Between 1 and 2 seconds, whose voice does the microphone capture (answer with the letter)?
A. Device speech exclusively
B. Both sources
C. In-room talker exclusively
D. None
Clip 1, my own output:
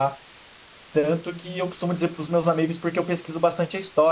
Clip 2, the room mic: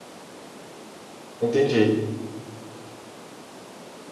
C